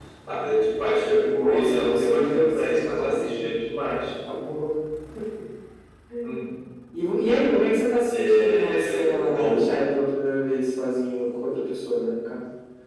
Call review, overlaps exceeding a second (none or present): present